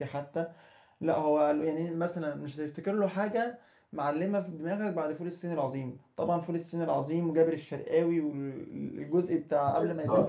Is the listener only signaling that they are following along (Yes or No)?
No